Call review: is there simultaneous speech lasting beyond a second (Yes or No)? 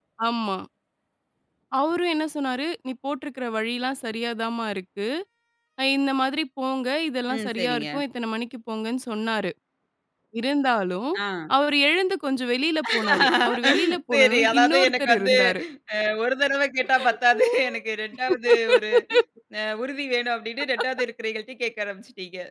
Yes